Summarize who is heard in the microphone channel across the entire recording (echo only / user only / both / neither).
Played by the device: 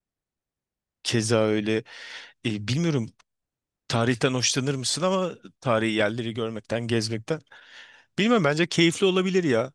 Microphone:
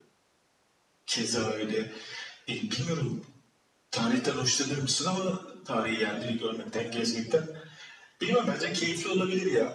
echo only